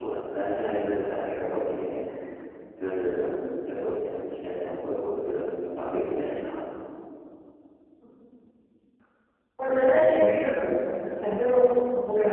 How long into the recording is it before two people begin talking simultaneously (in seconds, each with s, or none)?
none